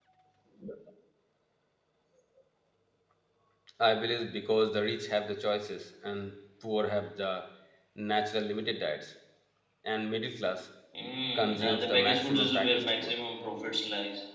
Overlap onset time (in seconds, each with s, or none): 11.3 s